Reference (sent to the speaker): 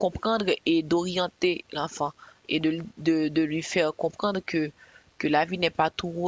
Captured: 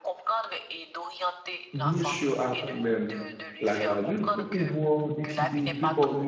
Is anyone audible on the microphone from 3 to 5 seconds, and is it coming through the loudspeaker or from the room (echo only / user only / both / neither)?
both